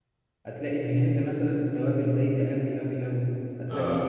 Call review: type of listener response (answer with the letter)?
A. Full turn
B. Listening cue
B